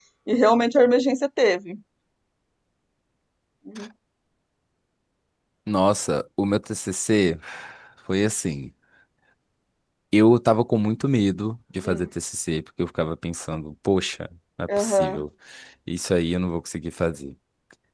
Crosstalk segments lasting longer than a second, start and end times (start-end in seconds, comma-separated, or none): none